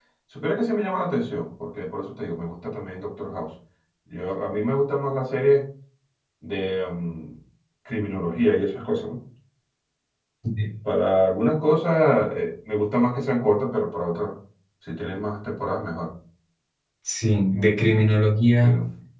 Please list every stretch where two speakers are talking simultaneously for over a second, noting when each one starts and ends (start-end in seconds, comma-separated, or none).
none